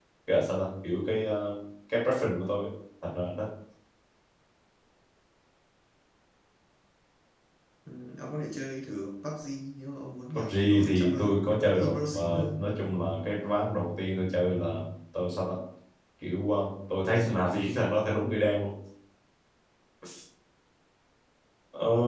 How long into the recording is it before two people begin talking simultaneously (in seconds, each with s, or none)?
10.3 s